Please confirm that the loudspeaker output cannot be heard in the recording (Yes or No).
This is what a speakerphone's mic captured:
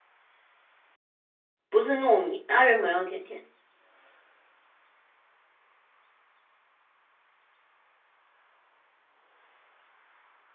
Yes